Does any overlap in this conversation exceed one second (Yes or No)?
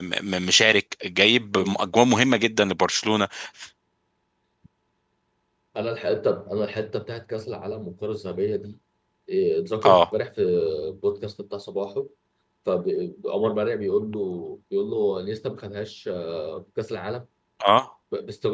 No